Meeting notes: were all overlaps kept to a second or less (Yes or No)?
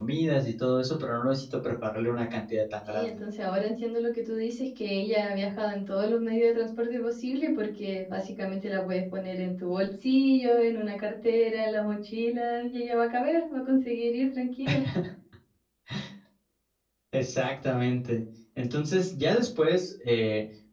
Yes